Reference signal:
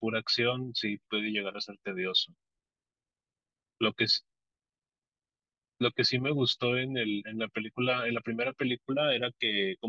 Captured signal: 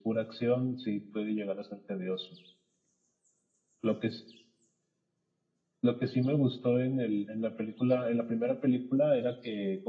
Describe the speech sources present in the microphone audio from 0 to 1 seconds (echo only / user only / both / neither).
echo only